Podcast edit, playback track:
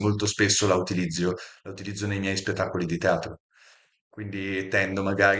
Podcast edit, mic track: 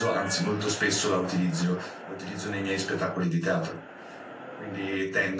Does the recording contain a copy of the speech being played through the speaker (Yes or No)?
Yes